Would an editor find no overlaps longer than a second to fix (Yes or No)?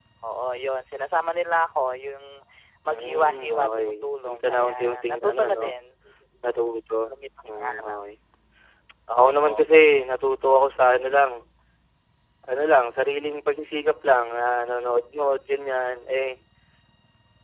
No